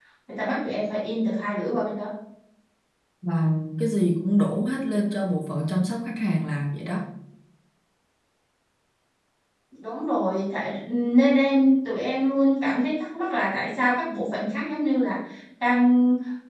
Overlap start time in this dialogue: none

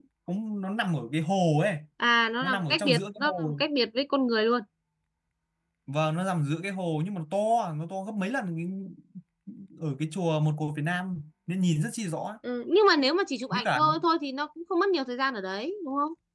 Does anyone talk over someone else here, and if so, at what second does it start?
2.4 s

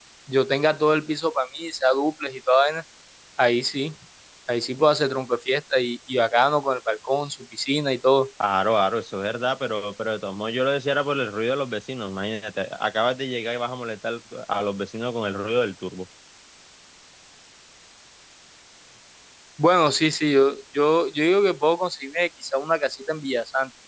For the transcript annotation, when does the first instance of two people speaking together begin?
none

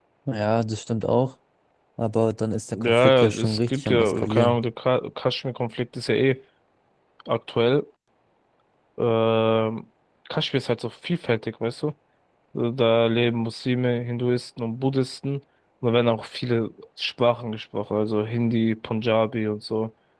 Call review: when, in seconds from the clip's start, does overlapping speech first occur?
2.7 s

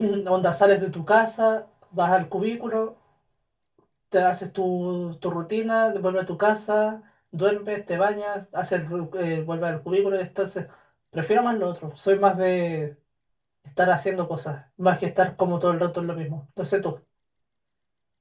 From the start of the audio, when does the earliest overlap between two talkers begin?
none

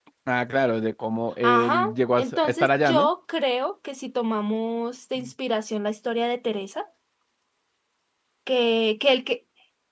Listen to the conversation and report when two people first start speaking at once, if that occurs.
1.4 s

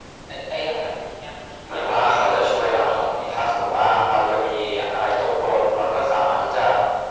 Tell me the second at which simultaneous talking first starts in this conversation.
1.7 s

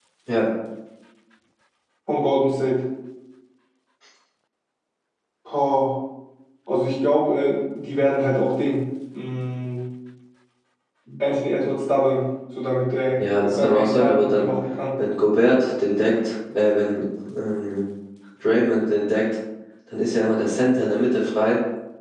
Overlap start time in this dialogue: 13.1 s

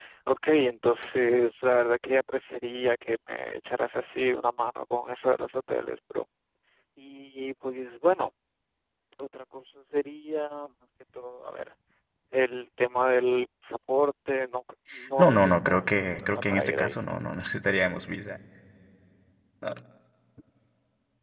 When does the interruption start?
15.2 s

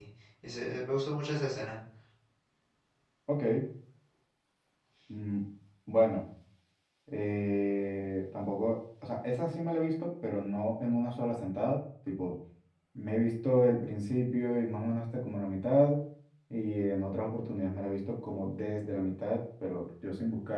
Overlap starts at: none

